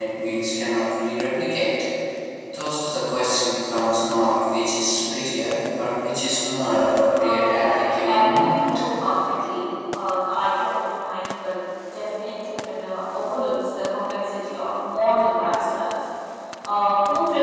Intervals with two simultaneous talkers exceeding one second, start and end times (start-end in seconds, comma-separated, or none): 7.2-8.8